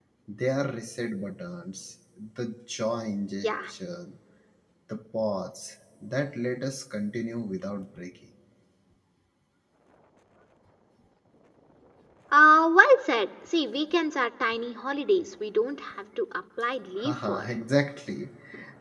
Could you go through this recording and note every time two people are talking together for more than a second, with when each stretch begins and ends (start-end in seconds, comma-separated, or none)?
none